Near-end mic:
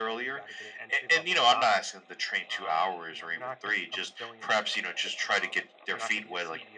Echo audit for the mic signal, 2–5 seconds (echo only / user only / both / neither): both